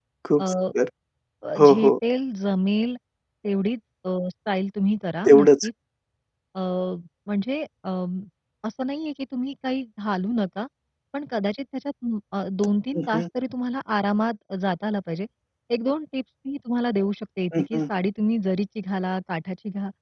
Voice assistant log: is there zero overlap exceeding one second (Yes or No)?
Yes